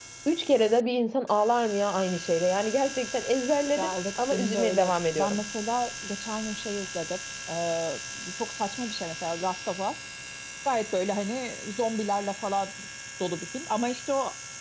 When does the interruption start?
4 s

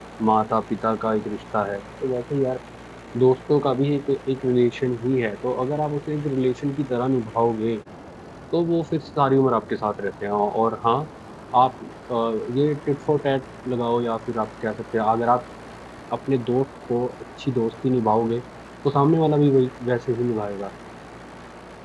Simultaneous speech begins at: none

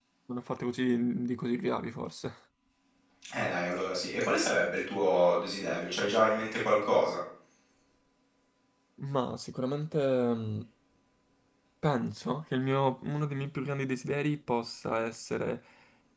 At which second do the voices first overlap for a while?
none

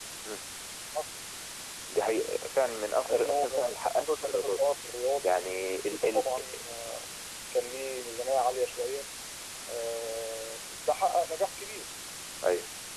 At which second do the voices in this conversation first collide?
3 s

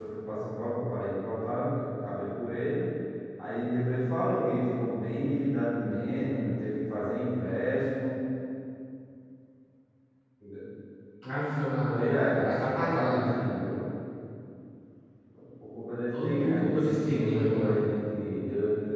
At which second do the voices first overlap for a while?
12 s

